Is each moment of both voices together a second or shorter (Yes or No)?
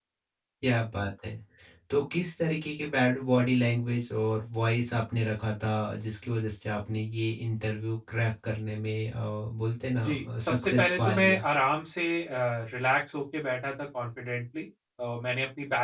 No